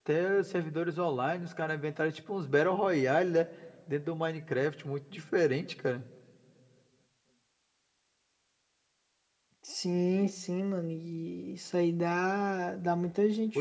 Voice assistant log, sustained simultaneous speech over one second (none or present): none